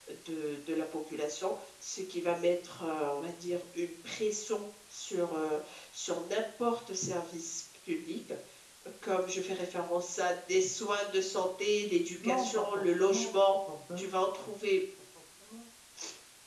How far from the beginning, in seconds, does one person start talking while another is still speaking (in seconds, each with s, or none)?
12.2 s